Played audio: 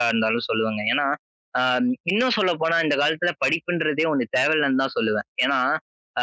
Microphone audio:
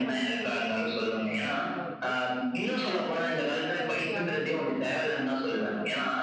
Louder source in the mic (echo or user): echo